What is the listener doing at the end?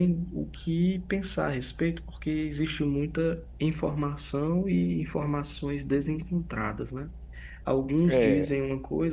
listening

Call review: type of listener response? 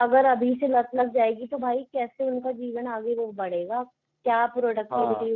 listening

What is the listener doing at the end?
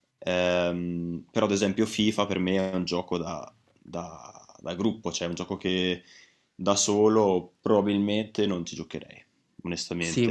taking over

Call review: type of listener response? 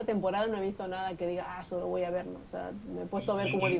taking over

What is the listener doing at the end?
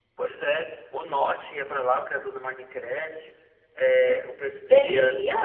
listening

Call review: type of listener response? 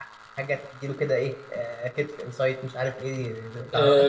taking over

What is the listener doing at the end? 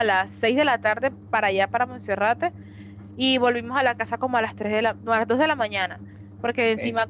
listening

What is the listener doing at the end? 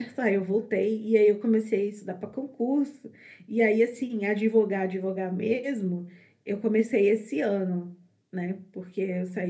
listening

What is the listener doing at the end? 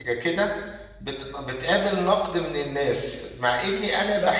listening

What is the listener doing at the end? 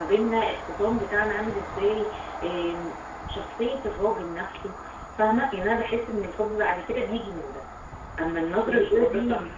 taking over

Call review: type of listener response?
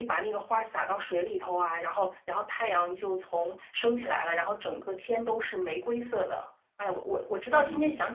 taking over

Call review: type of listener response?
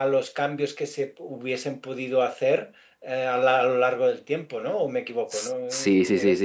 taking over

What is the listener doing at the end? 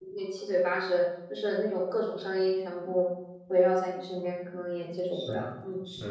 taking over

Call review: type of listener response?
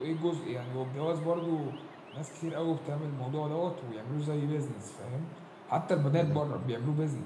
listening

